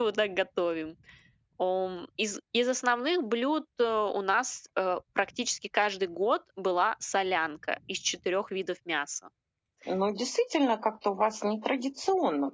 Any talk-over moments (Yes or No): No